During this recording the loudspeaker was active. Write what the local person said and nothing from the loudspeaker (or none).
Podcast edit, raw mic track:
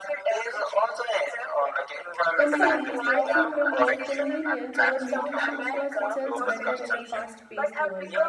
companies they often promote convenience over nutrition because it sells better in a fast paced world